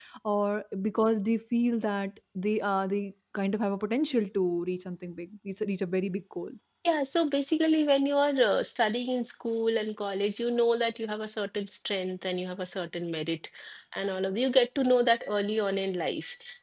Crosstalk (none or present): none